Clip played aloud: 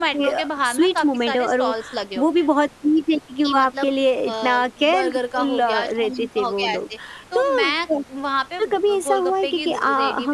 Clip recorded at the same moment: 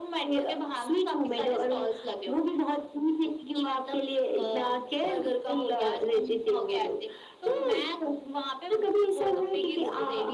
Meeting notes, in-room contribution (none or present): none